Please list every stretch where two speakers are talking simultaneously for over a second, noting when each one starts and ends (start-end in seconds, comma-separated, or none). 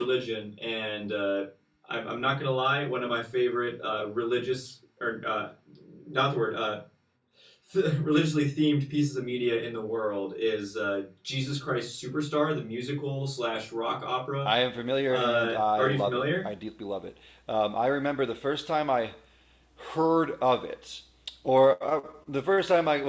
15.1-16.5